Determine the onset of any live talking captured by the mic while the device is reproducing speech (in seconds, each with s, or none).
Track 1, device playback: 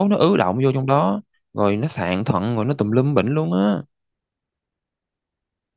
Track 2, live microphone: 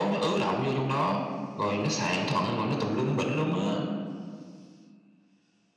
none